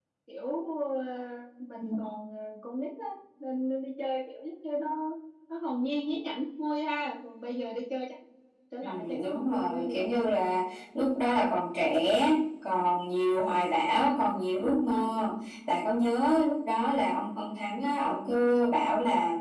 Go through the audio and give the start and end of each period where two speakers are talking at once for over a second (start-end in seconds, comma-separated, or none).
8.8-10.3